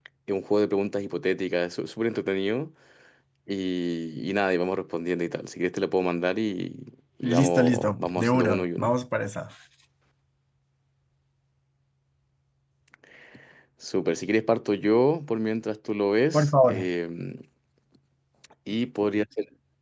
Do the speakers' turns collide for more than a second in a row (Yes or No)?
Yes